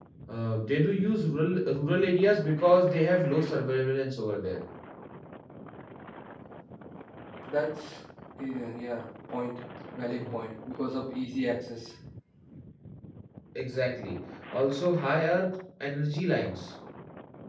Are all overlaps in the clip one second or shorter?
Yes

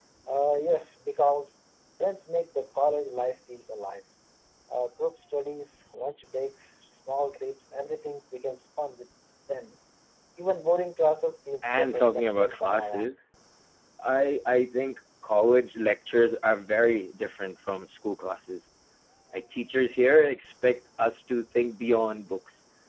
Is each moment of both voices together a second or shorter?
No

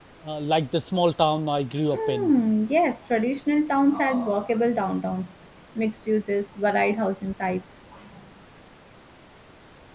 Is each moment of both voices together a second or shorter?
Yes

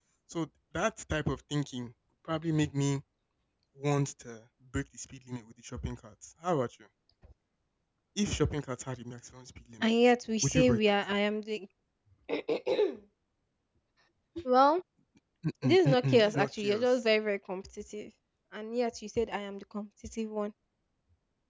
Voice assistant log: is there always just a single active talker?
No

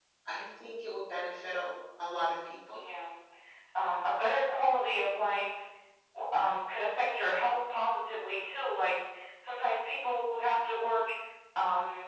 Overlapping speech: No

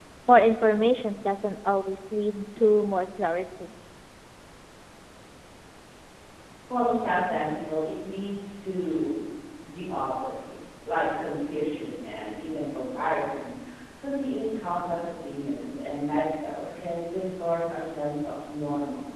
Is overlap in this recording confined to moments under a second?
Yes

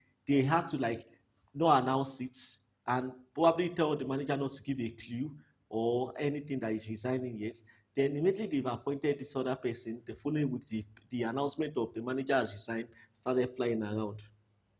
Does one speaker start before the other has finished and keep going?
No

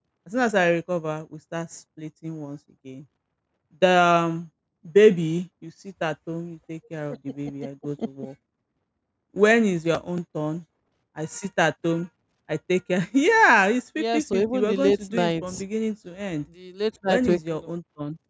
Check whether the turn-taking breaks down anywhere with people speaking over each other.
Yes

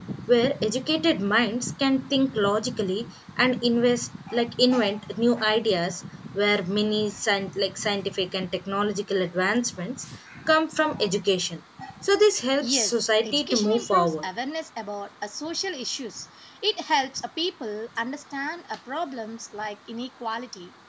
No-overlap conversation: No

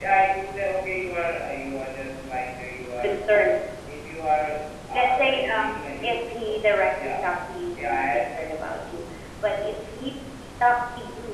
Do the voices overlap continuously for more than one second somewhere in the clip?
Yes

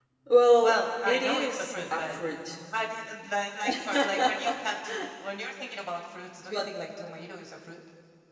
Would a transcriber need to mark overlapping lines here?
Yes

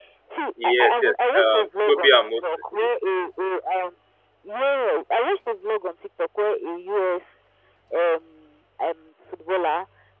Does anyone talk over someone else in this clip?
Yes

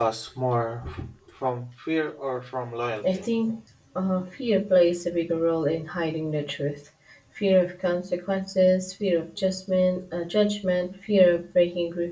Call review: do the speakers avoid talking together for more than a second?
Yes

